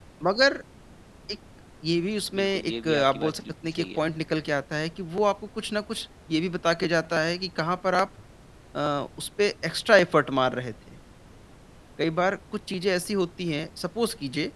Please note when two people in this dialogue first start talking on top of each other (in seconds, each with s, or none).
2.4 s